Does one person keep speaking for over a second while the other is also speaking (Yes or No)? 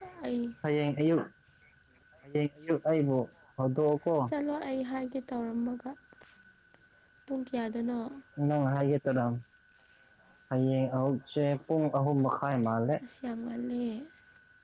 No